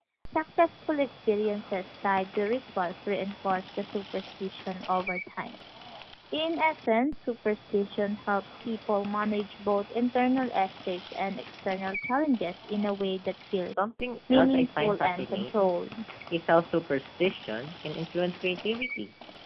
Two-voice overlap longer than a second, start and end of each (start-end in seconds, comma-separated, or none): 14.3-15.8